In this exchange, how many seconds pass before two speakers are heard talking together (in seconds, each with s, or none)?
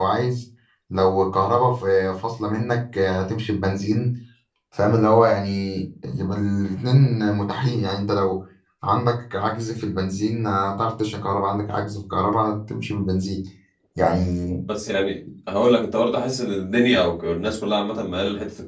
none